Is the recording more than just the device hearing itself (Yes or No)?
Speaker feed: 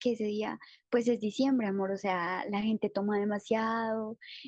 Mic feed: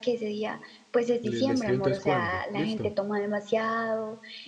Yes